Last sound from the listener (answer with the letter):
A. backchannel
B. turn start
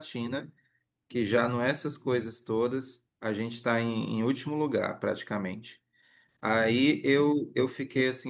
A